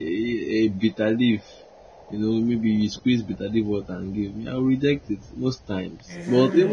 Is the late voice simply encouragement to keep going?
Yes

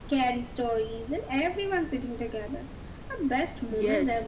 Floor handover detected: Yes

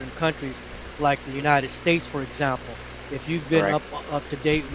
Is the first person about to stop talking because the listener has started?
No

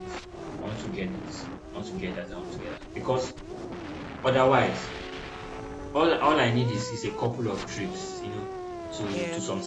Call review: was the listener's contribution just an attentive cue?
Yes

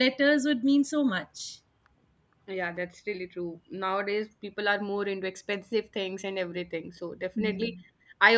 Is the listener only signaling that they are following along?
Yes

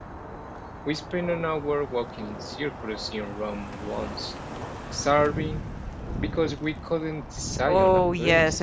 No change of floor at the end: No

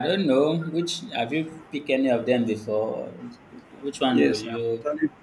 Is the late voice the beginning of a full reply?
Yes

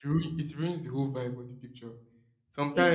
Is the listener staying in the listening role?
Yes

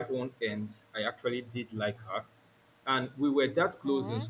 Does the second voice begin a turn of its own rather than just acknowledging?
No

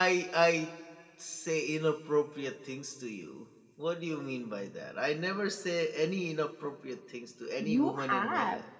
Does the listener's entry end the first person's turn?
Yes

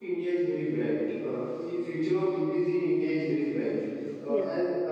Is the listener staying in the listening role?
Yes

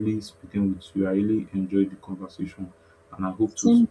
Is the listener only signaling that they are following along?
Yes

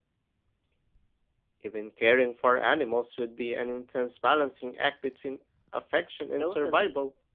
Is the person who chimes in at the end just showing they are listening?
No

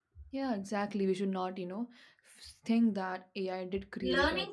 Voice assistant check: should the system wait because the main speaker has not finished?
No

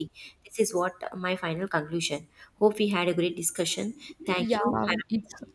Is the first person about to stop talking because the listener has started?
Yes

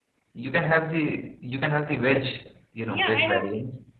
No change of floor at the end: No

